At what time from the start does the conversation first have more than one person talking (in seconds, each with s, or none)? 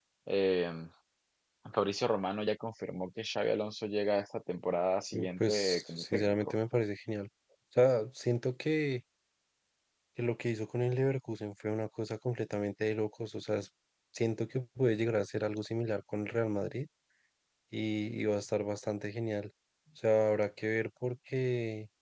5.1 s